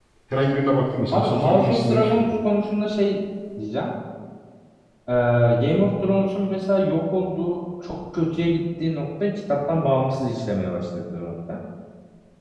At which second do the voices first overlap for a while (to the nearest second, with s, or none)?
1 s